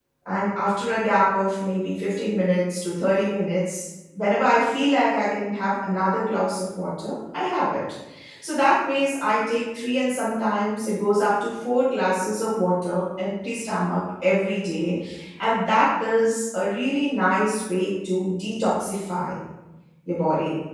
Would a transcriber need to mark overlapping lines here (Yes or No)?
No